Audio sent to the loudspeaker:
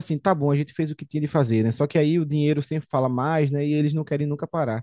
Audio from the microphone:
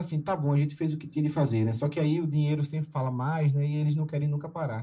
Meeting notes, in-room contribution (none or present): none